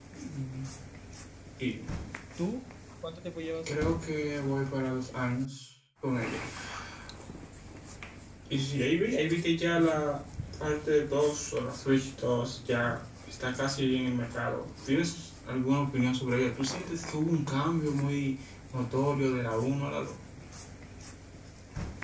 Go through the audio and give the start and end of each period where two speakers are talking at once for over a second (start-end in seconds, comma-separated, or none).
none